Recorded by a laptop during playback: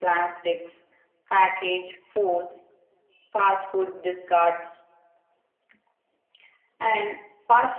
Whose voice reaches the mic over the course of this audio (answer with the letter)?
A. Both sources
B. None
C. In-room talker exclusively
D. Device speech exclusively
D